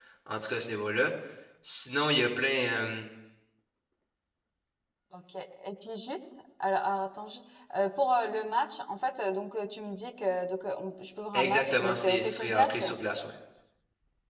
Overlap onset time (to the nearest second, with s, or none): 11 s